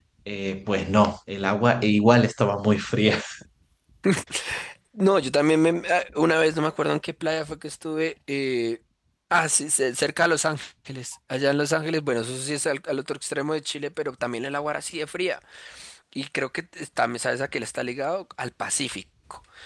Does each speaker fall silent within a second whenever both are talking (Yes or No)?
Yes